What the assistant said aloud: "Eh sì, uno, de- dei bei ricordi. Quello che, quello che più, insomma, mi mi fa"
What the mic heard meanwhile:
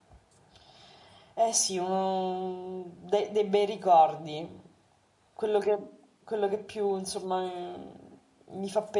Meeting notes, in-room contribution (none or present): none